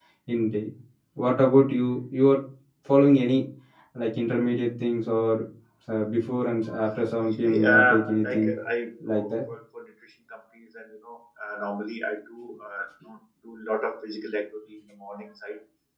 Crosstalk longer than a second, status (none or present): present